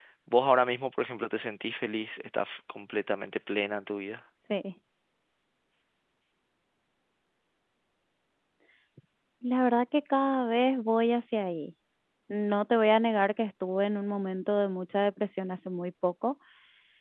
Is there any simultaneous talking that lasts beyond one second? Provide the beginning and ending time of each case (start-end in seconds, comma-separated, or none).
none